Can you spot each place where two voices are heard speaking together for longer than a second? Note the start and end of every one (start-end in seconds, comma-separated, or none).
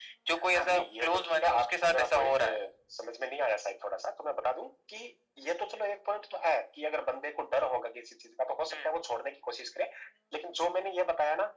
0.5-2.4